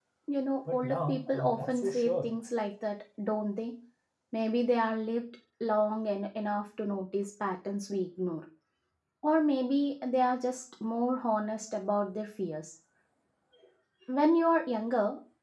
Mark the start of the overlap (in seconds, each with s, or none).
0.7 s